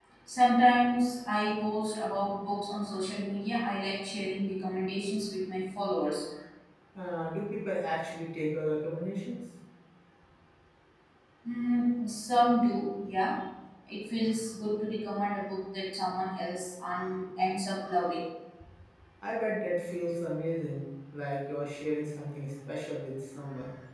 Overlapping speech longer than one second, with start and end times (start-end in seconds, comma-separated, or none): none